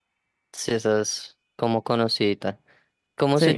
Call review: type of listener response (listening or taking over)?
listening